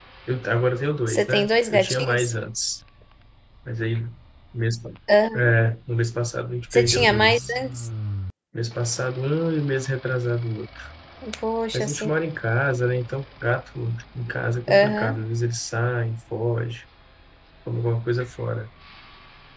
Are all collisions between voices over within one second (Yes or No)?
No